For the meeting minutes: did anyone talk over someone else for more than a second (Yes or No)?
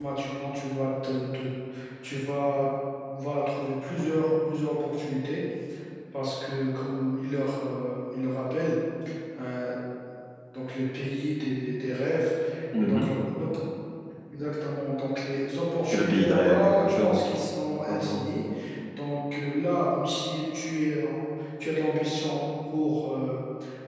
Yes